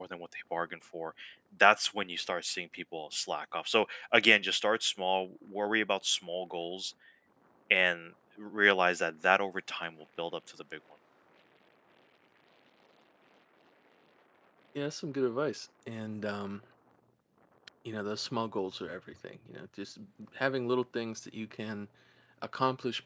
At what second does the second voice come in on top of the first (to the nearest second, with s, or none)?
none